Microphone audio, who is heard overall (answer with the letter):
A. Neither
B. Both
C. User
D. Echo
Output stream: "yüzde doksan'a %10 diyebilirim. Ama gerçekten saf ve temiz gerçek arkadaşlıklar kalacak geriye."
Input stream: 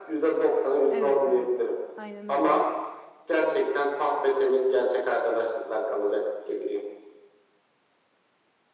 B